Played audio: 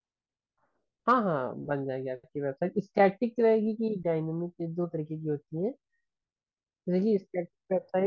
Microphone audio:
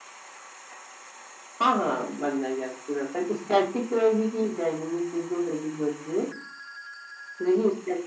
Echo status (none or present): present